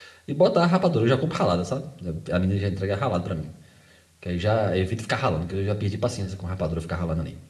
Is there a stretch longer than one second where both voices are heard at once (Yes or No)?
No